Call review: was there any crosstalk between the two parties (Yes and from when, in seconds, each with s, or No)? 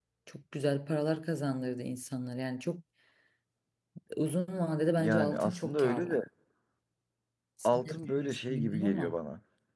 Yes, from 5.0 s